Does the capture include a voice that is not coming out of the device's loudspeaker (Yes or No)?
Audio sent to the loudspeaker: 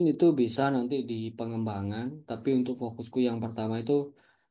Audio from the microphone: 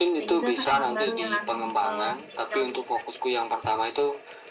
Yes